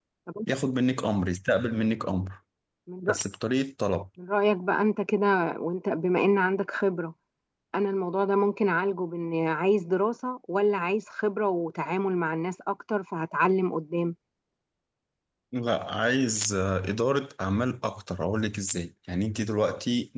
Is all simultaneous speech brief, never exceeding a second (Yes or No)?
Yes